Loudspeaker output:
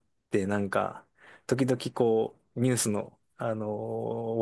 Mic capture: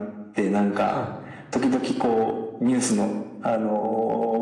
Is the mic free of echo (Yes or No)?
No